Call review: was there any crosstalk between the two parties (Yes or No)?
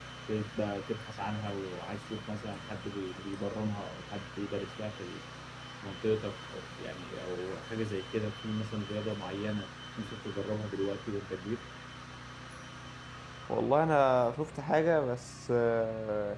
No